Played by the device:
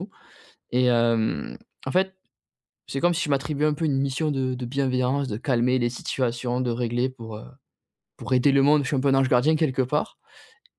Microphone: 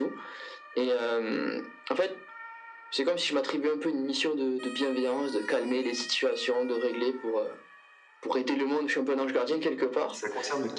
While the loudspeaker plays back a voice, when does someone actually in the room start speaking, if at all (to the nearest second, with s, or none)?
10 s